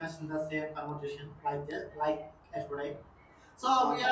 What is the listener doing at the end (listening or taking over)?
listening